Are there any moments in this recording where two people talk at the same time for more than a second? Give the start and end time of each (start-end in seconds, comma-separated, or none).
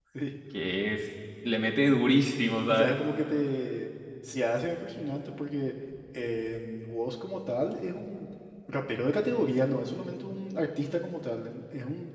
none